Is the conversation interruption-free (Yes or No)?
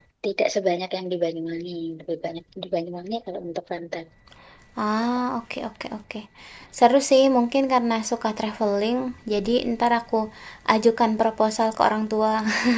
Yes